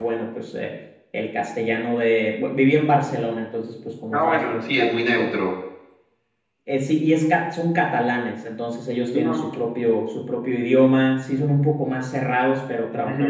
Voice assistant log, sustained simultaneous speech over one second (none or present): present